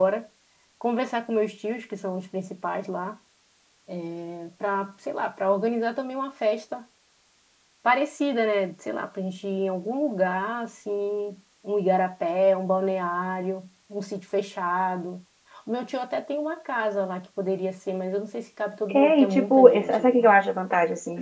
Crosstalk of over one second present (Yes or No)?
Yes